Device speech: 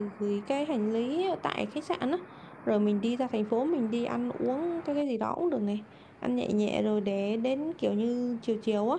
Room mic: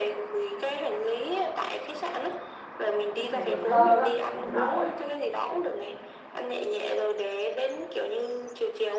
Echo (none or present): present